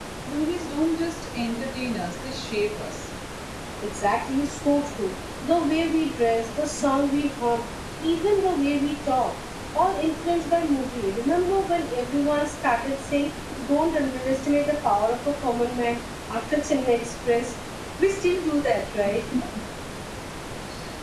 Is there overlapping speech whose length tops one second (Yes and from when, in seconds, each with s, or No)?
No